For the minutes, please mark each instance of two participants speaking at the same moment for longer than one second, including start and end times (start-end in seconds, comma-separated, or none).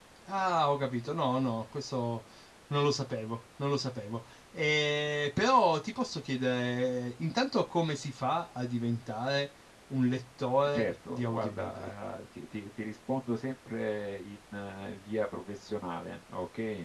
10.6-11.9